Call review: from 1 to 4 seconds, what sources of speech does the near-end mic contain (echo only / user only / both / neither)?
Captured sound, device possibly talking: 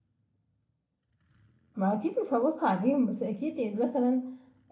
user only